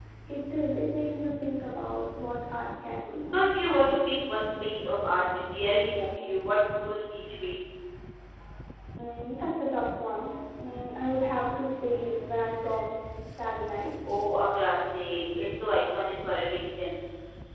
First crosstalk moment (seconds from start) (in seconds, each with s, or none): none